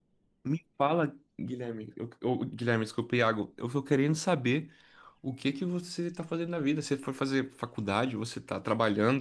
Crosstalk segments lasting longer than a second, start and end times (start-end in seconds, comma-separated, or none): none